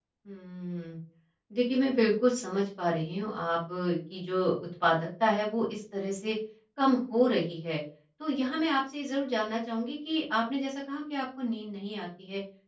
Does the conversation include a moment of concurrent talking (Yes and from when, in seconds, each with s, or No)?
No